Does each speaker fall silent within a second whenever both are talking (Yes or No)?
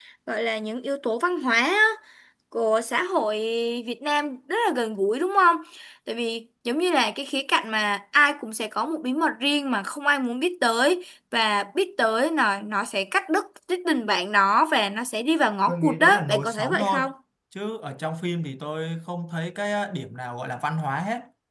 No